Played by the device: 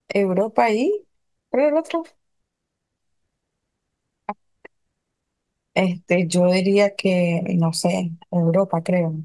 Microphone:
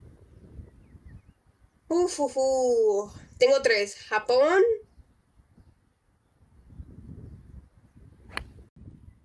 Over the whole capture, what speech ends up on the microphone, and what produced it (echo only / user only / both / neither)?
user only